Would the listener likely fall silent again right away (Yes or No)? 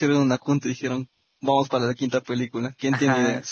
No